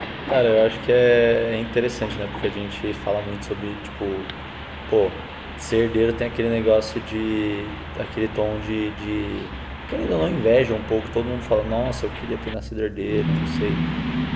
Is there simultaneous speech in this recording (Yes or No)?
No